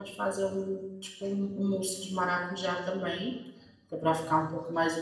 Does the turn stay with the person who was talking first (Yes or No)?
Yes